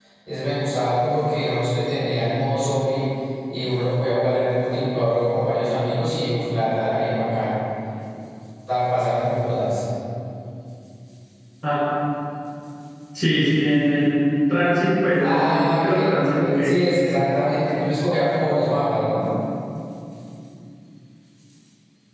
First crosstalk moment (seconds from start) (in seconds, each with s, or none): 15.2 s